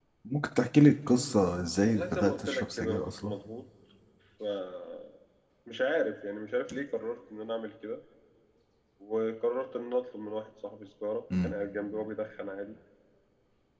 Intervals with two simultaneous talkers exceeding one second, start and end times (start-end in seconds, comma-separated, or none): 1.8-3.3